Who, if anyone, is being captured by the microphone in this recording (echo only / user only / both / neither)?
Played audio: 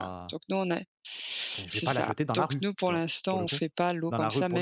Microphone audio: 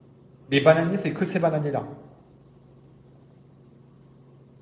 user only